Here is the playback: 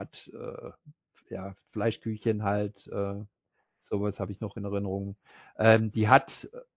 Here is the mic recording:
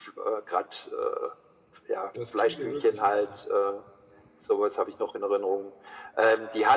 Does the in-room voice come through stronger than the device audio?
No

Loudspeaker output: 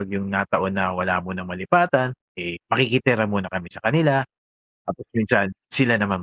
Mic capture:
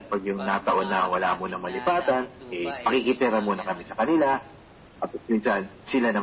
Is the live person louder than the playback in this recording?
No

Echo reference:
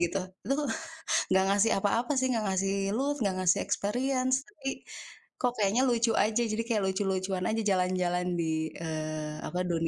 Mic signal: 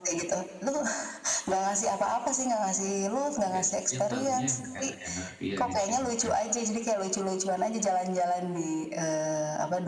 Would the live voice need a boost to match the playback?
Yes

